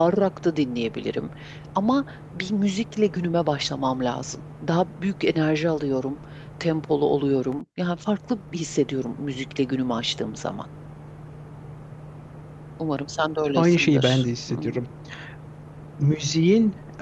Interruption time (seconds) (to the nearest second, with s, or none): 14 s